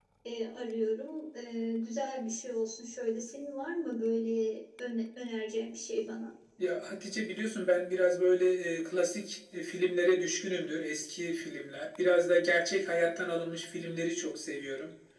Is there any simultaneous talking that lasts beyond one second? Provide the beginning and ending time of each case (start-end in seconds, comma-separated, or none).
none